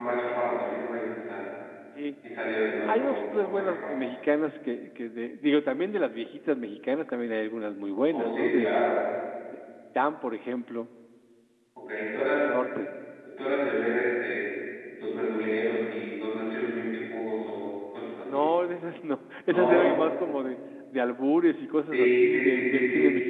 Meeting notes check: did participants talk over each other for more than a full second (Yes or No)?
Yes